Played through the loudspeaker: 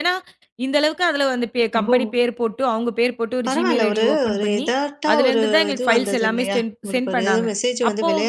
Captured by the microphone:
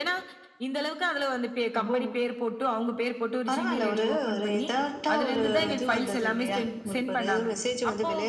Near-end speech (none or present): none